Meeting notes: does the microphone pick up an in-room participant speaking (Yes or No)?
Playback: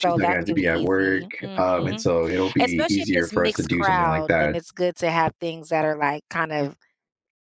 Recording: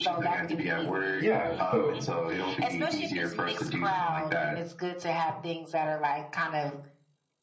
Yes